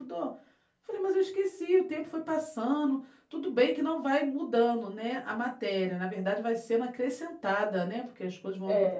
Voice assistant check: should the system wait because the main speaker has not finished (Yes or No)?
No